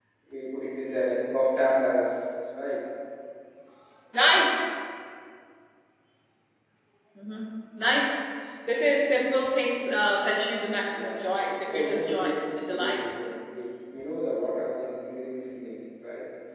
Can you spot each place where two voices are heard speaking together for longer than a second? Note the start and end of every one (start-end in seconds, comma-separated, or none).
11.7-13.0